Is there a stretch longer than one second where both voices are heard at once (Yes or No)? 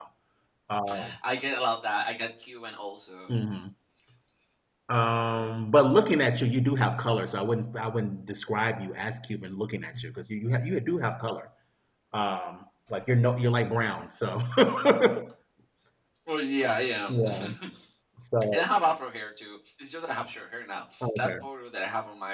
No